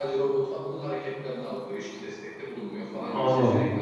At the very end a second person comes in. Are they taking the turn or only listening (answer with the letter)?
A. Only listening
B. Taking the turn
B